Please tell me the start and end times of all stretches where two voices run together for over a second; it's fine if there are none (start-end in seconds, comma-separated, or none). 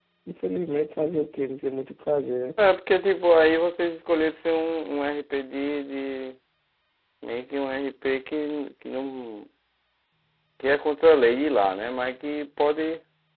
none